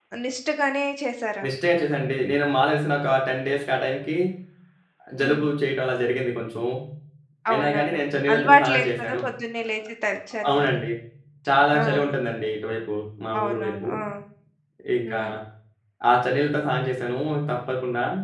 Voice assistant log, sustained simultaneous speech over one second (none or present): present